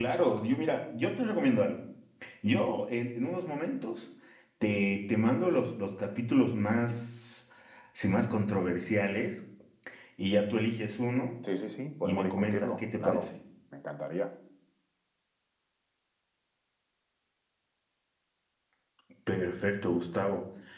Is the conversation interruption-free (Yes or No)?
No